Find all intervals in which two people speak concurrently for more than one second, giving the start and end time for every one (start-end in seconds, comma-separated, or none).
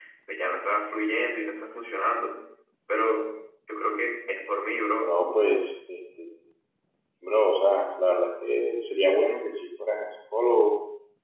none